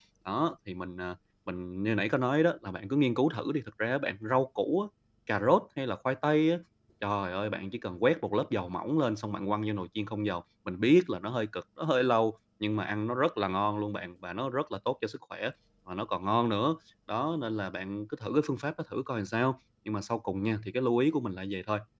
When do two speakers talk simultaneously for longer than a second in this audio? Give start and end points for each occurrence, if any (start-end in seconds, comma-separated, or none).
none